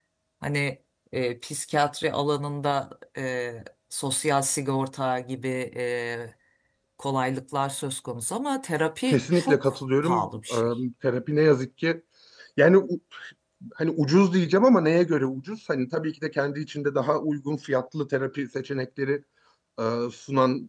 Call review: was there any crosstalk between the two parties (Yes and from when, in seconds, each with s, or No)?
Yes, from 9.1 s